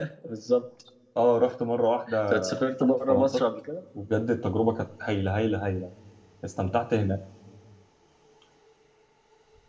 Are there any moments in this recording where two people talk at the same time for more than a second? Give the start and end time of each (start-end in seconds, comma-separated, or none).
none